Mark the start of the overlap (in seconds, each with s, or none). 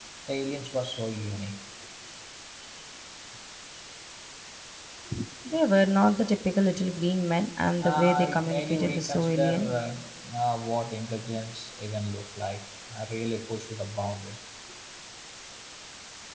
7.8 s